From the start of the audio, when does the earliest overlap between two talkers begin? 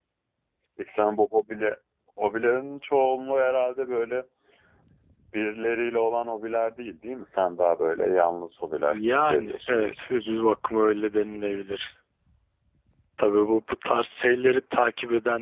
8.9 s

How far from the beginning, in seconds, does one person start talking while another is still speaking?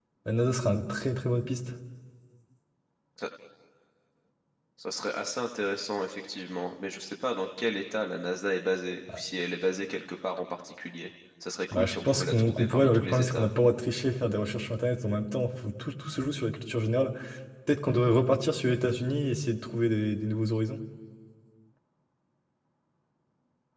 11.7 s

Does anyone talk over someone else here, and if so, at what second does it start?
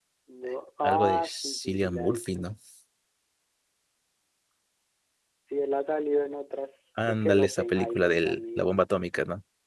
0.8 s

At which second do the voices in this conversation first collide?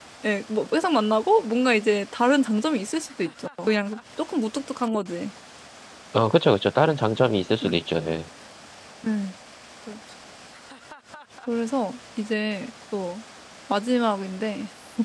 none

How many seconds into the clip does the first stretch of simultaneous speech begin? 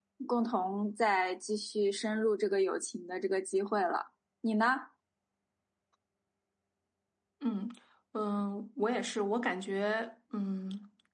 none

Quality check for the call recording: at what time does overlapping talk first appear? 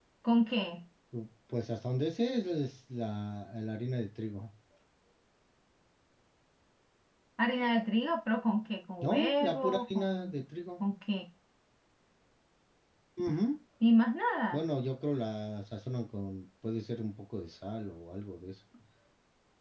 9.0 s

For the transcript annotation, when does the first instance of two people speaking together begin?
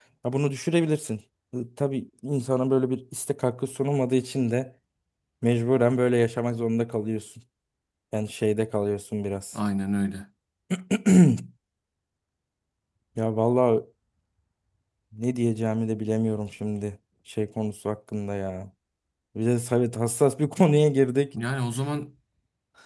none

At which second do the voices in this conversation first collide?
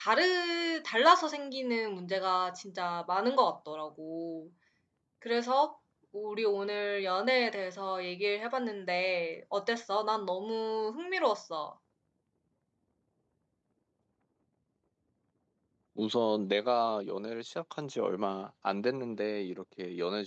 none

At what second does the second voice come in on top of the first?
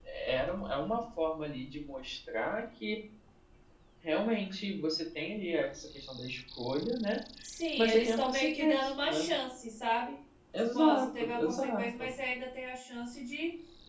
7.8 s

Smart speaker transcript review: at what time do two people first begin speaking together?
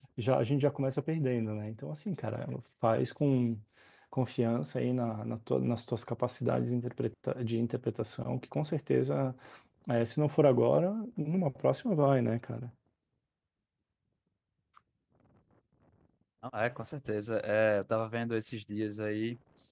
none

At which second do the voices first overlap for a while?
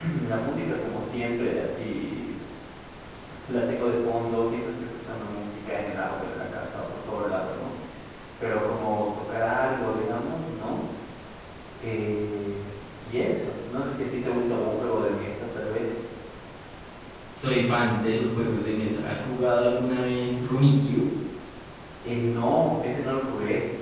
none

